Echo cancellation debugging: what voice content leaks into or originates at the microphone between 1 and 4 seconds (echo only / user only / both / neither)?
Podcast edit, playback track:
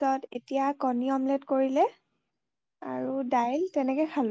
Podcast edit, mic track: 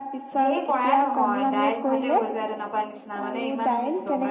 both